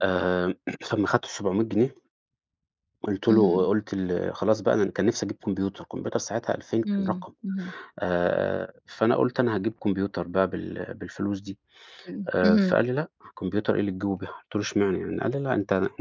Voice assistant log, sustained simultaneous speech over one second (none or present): none